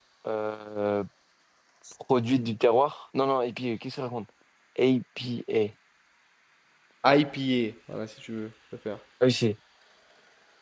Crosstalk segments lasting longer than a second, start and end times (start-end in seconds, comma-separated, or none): none